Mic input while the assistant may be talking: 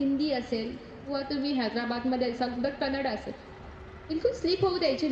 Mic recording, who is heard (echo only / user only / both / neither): user only